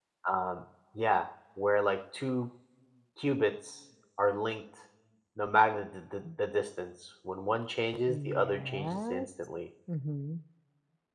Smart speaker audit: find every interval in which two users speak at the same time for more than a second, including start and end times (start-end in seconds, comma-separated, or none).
8.1-9.3